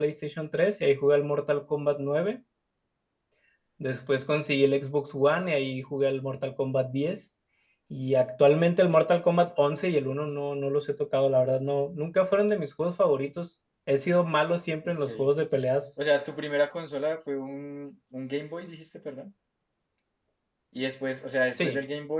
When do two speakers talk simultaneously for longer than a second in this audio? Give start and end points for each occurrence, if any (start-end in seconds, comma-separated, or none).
none